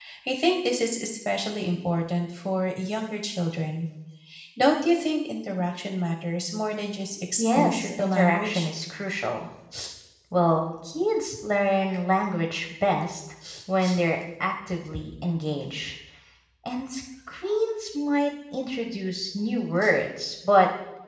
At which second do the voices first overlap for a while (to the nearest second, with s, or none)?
7 s